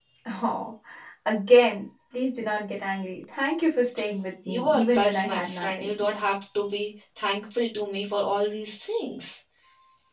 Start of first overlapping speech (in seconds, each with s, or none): 4.5 s